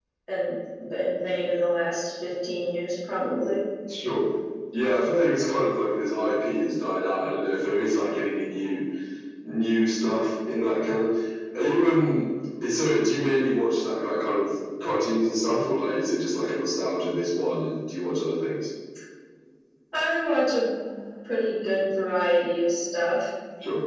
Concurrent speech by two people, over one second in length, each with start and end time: none

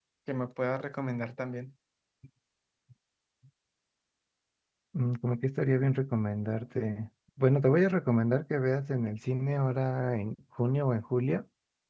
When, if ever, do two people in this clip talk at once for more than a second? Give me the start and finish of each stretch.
none

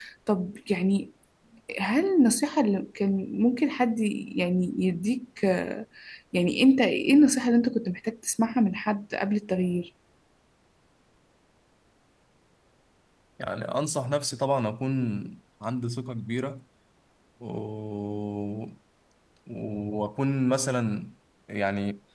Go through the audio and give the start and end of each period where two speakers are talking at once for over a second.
none

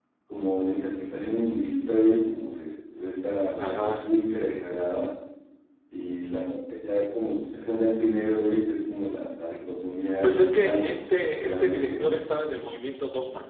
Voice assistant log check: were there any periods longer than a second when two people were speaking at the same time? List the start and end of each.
10.2-12.1

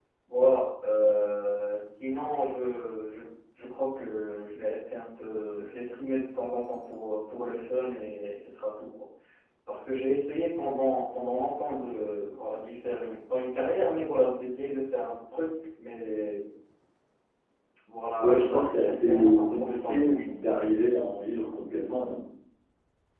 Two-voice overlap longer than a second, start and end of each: 18.2-20.6

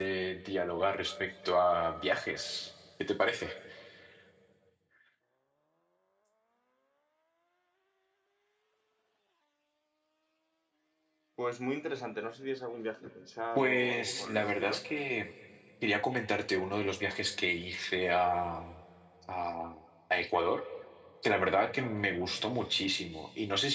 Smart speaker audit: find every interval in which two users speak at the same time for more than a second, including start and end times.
13.6-14.8

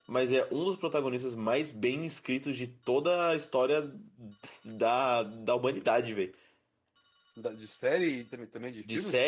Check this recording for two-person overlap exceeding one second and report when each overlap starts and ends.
none

